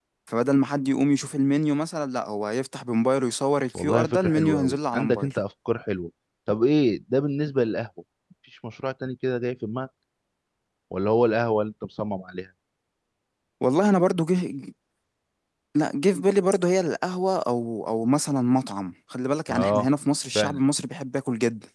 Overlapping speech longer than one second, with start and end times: 3.8-5.3

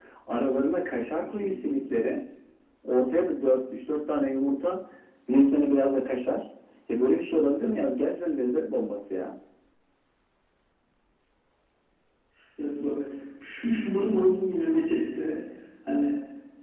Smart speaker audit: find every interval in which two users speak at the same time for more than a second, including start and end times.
none

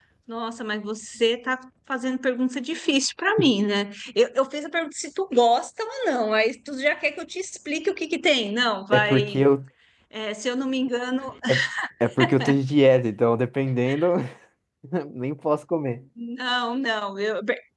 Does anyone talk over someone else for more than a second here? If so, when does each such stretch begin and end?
none

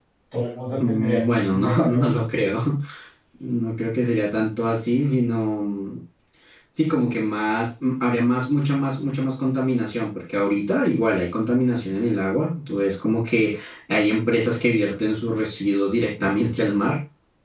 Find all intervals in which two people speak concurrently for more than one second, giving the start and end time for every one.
0.8-2.1

